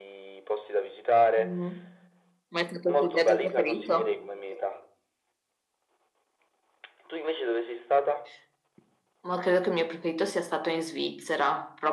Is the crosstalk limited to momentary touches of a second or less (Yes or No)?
No